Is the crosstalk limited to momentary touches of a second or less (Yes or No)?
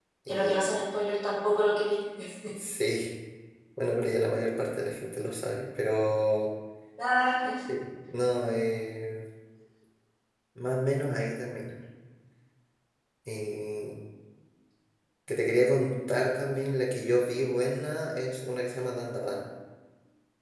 Yes